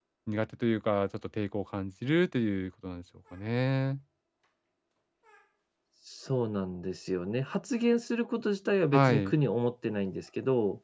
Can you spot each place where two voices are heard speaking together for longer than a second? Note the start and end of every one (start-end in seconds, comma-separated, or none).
none